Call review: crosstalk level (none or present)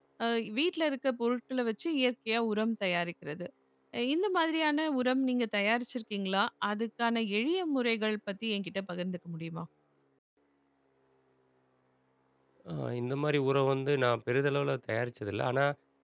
none